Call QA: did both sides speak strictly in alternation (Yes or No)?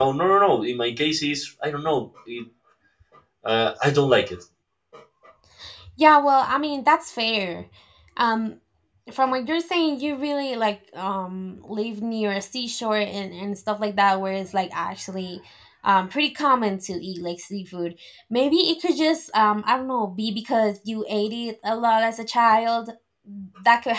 Yes